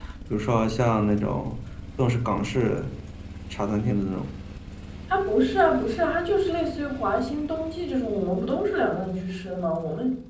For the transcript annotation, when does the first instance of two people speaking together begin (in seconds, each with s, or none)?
none